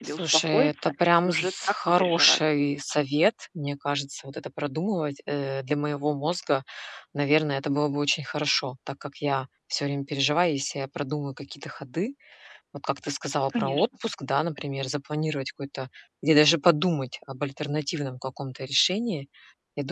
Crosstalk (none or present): present